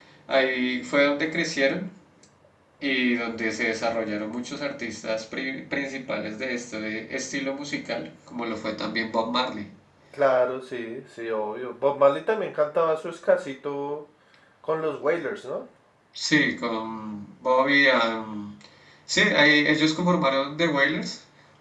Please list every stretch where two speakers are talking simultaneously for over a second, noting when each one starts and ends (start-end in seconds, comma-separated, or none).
none